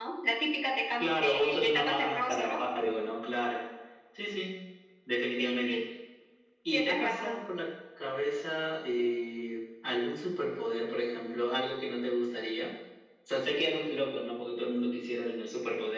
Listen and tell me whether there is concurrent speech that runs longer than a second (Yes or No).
Yes